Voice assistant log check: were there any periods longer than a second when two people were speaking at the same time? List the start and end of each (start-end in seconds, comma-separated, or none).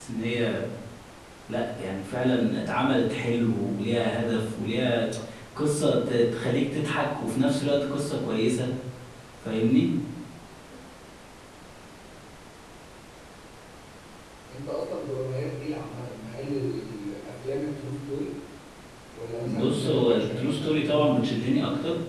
19.4-21.5